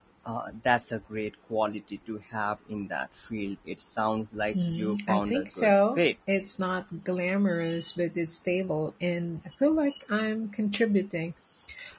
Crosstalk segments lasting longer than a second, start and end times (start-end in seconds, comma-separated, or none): 4.6-6.0